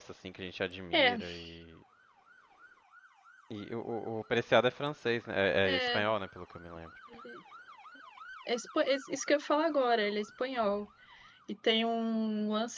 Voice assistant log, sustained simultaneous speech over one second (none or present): none